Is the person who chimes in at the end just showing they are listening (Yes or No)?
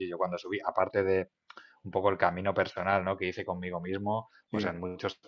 Yes